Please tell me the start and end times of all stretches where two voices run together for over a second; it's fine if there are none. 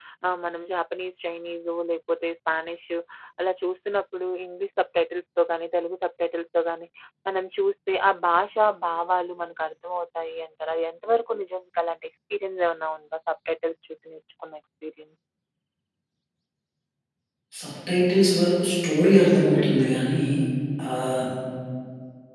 none

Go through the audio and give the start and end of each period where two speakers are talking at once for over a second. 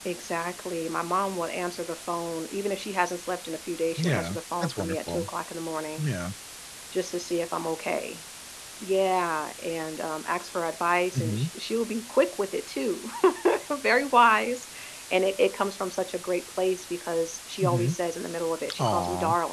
4.0-5.2

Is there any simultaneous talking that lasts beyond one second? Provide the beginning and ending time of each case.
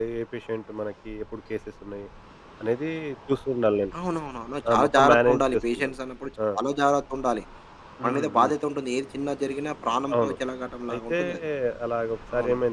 4.7-5.9

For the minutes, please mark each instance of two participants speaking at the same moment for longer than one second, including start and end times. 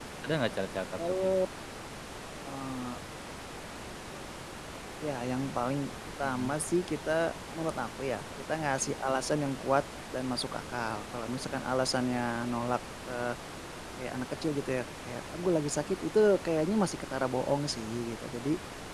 none

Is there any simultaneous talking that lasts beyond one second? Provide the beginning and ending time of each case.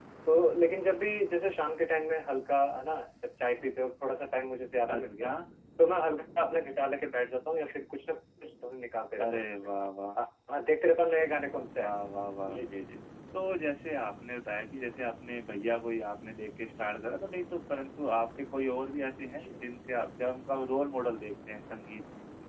none

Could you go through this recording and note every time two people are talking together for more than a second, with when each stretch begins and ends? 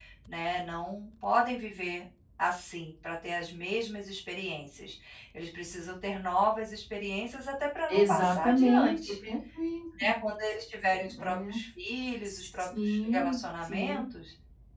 7.9-9.1, 12.2-14.0

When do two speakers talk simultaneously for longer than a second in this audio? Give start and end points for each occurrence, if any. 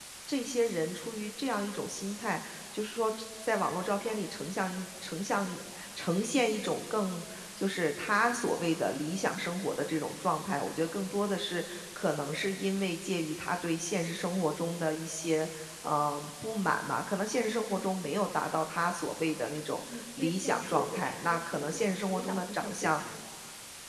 19.9-23.0

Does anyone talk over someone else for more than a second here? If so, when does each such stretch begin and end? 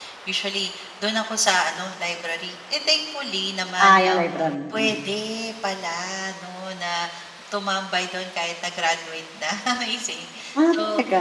none

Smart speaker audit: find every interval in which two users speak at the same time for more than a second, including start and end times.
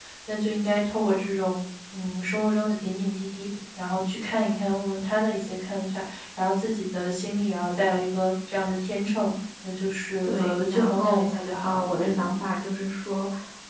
10.3-12.3

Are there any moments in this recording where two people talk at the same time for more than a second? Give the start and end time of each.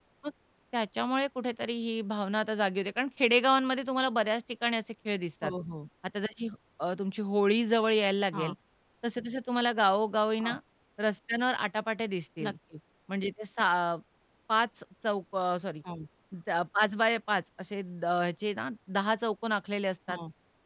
none

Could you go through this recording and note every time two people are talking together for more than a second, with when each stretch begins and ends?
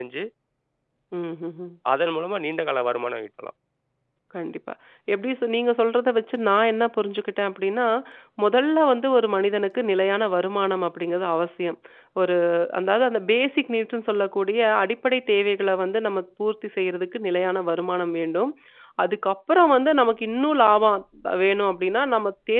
none

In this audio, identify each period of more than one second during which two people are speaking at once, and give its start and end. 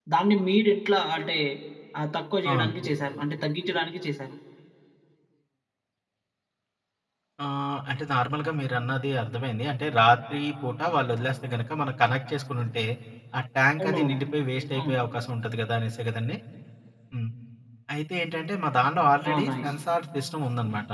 none

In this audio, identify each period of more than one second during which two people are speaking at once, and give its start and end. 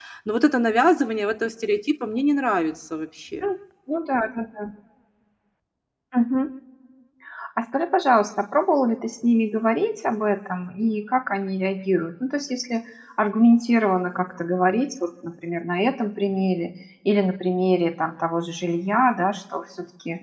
none

